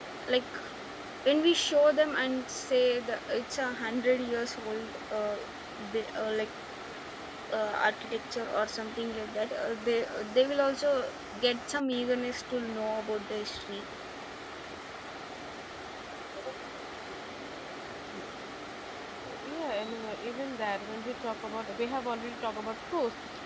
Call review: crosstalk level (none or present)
none